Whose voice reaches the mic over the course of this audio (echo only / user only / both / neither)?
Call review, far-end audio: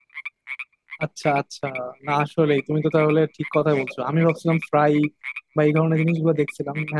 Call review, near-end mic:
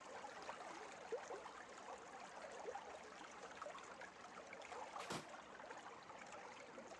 neither